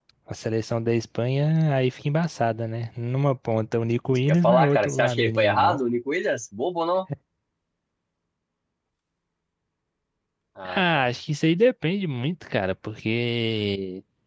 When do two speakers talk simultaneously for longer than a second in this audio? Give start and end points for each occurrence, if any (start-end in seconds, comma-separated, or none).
4.3-5.8